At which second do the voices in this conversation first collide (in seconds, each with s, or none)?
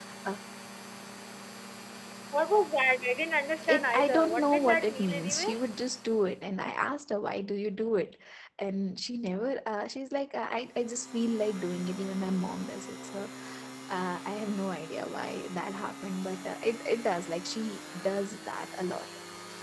3.6 s